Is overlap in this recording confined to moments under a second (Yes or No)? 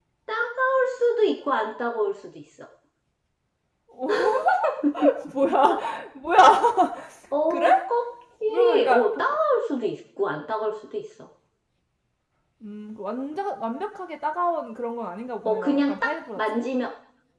No